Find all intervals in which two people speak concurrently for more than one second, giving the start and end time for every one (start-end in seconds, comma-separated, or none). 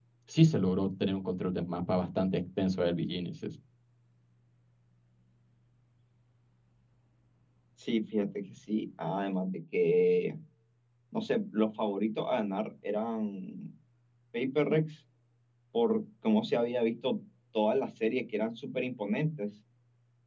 none